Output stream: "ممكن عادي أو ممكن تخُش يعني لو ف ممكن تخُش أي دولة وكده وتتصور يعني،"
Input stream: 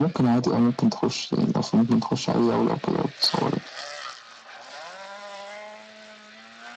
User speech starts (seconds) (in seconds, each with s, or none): none